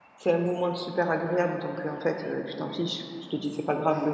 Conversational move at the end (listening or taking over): listening